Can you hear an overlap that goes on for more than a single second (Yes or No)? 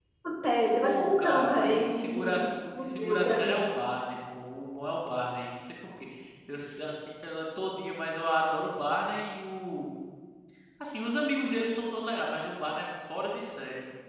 Yes